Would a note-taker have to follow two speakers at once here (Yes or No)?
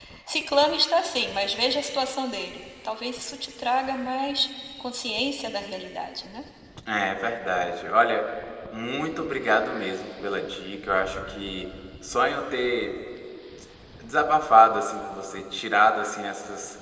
No